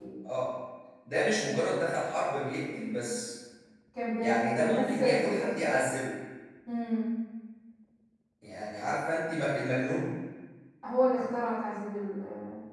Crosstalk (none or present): present